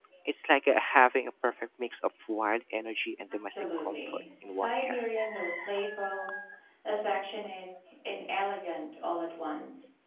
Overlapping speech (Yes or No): Yes